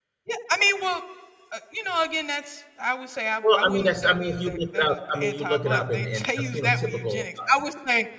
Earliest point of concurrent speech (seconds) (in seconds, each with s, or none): 3.4 s